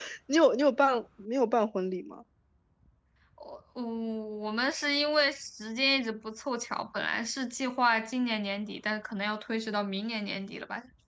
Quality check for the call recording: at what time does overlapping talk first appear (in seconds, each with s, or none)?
none